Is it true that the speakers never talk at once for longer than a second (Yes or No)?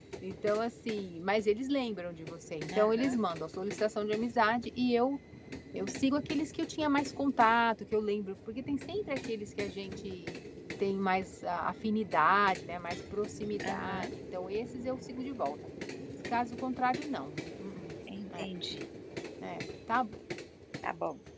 Yes